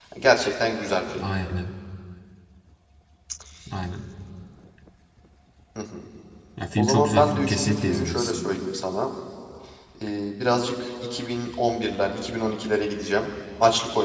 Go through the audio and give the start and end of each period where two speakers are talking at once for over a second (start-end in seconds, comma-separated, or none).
6.8-8.3